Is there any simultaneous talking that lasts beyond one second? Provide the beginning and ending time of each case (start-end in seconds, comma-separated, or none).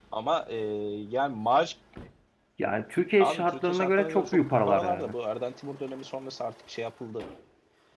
3.2-5.1